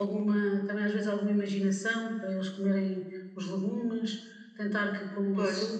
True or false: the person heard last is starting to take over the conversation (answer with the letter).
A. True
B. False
B